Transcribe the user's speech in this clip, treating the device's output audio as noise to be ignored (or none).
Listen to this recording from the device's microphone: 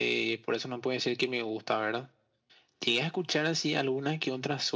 none